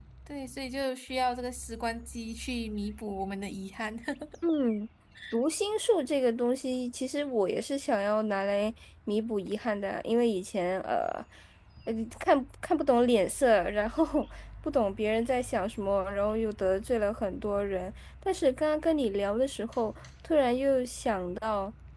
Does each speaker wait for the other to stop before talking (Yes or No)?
Yes